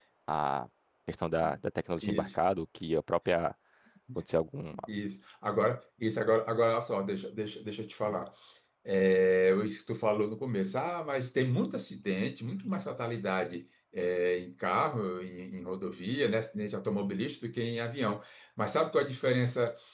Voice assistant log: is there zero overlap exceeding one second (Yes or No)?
Yes